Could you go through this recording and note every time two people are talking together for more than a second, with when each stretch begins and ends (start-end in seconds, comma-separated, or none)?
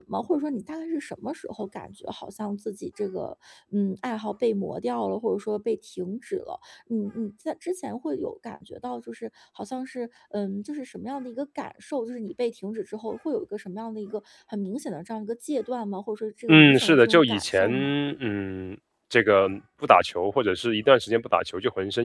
16.5-17.7